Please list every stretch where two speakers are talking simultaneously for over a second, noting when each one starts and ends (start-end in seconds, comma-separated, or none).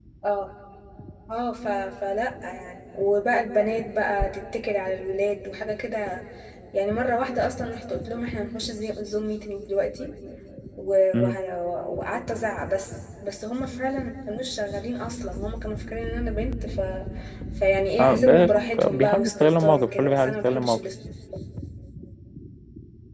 18.9-20.8